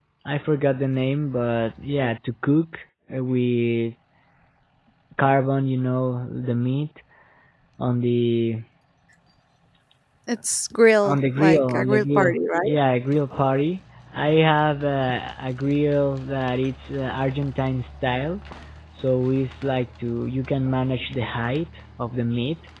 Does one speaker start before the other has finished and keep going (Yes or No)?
Yes